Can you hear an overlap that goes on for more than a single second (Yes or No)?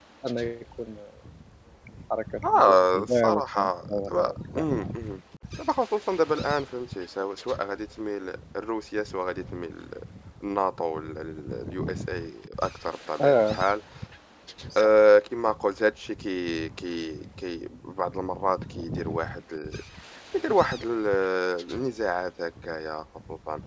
Yes